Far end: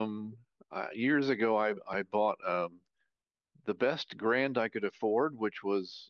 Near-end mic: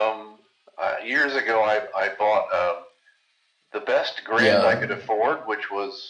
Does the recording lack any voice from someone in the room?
No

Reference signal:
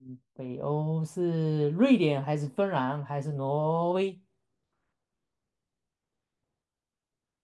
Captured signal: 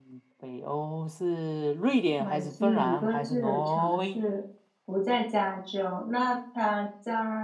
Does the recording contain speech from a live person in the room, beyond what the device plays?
Yes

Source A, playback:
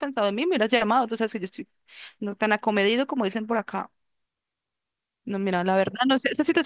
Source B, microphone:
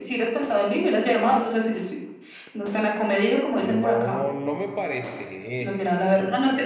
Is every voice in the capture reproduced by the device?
No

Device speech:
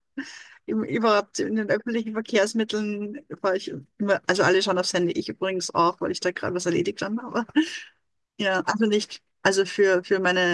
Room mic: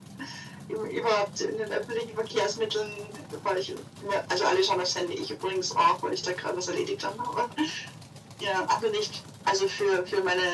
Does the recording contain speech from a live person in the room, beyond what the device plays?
No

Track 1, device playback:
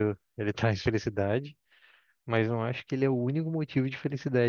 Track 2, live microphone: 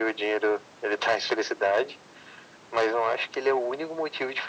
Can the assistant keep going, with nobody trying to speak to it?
Yes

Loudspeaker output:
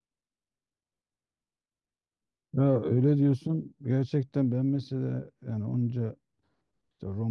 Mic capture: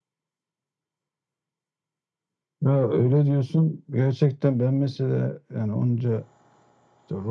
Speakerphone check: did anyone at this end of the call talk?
No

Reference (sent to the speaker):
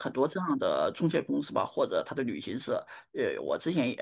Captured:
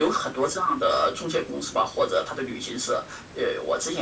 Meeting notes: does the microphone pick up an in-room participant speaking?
No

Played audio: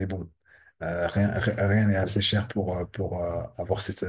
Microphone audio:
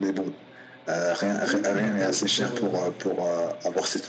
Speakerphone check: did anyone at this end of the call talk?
Yes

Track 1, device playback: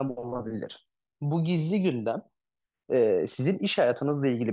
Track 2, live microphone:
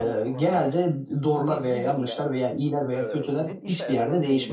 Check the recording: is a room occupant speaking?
Yes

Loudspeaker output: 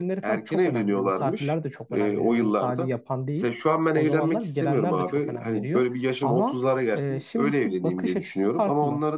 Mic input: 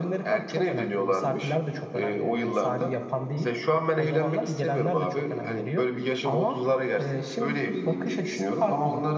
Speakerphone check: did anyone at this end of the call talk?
No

